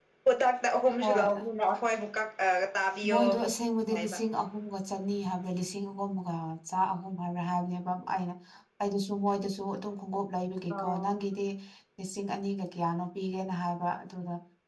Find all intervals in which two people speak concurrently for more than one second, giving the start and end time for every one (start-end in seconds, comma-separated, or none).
none